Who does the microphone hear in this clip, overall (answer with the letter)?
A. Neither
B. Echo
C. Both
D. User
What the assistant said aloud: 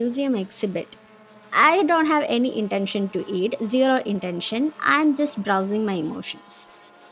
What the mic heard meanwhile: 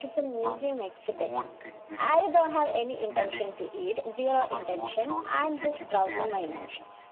C